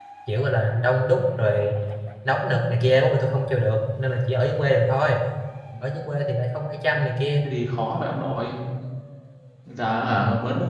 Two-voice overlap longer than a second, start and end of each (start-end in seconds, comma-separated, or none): none